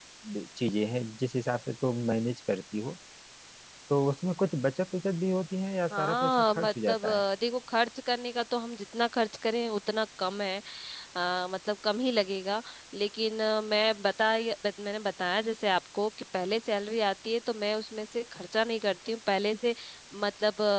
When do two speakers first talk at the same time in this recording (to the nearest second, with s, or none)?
6 s